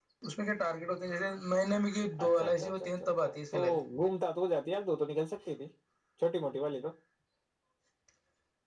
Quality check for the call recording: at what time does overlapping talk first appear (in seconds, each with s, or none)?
2.1 s